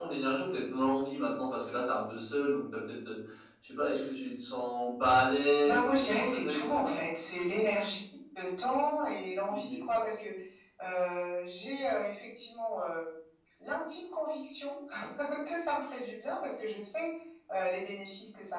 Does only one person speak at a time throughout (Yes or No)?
No